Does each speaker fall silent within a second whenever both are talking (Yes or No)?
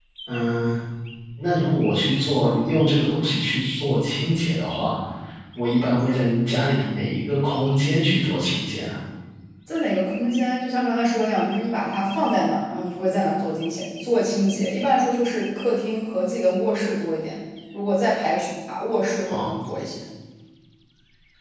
Yes